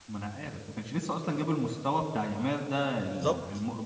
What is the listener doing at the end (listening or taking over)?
listening